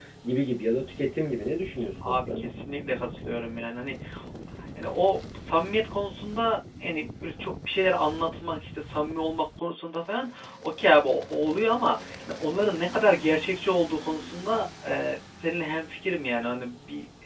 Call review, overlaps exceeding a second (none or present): none